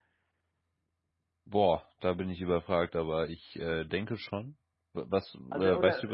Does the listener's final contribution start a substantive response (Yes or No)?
Yes